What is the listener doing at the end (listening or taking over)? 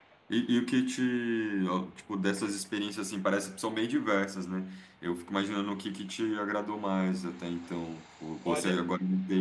listening